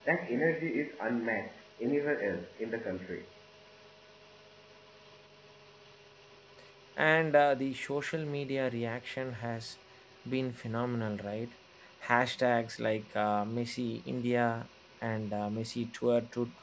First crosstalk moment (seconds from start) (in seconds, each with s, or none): none